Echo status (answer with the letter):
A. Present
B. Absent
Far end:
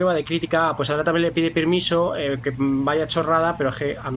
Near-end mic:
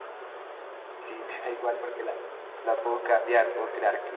B